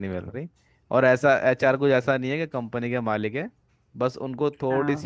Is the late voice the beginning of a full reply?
No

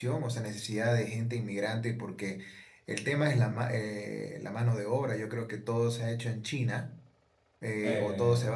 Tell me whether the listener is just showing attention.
Yes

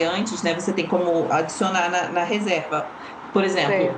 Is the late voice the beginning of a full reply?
No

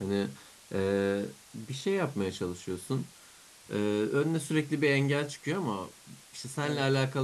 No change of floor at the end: Yes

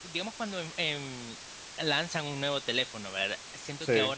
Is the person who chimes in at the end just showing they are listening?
Yes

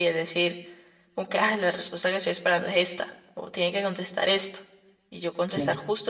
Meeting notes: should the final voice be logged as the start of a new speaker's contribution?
No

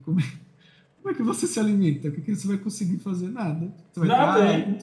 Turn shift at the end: No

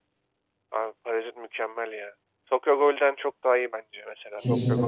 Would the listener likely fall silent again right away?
No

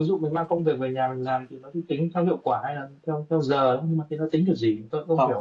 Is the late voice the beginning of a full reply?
Yes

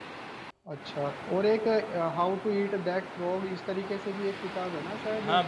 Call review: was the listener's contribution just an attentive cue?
No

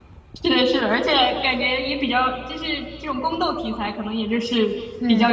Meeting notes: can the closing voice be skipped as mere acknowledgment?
Yes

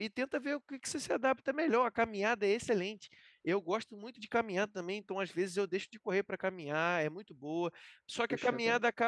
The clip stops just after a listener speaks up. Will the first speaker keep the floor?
Yes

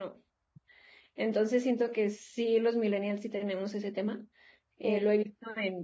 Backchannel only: Yes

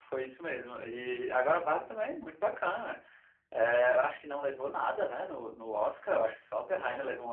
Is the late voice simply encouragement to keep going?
Yes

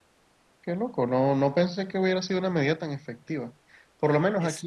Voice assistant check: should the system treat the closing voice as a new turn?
No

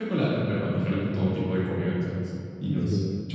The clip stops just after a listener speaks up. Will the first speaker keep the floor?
No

